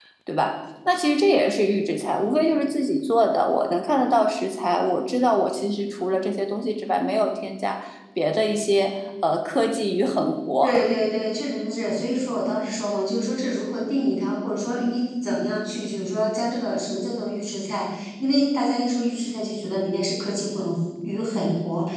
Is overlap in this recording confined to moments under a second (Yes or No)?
Yes